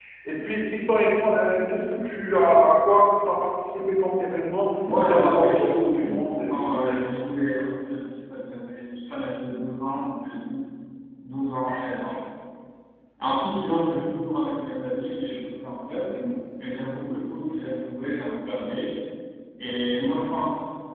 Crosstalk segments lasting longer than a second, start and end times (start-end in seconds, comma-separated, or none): 5.0-7.1